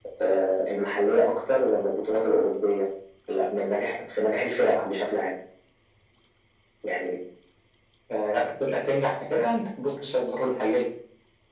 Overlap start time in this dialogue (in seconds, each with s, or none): none